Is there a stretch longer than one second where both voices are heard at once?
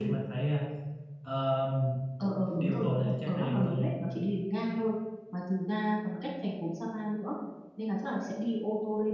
Yes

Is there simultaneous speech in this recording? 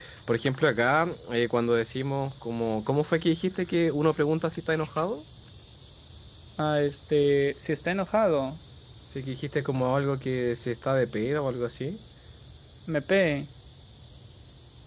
No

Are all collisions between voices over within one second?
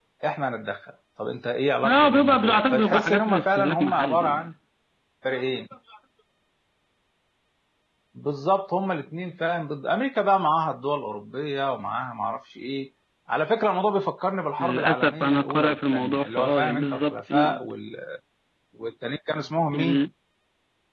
No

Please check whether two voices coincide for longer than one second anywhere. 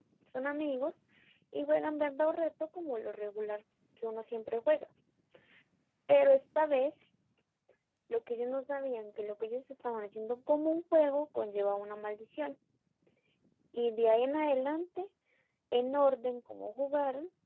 No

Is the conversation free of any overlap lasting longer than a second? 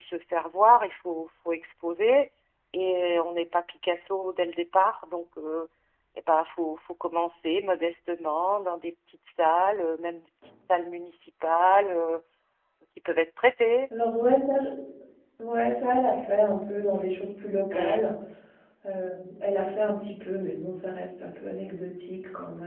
Yes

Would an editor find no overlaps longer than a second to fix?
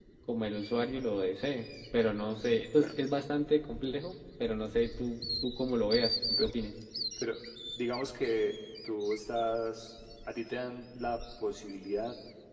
Yes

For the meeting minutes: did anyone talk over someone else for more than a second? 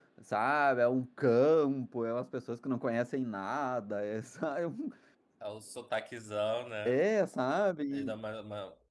No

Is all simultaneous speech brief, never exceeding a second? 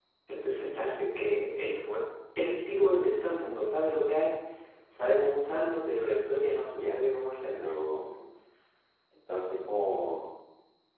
Yes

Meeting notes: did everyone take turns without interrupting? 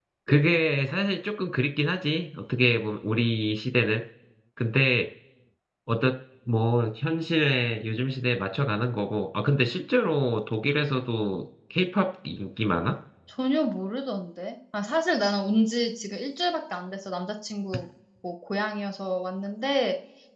Yes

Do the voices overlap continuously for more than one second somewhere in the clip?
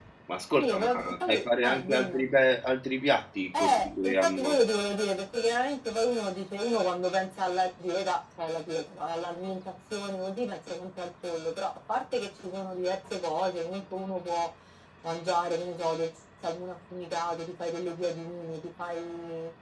Yes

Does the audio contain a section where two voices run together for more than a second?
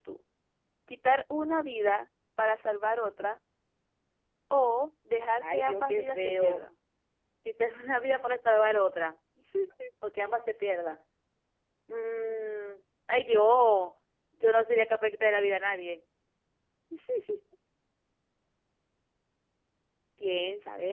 Yes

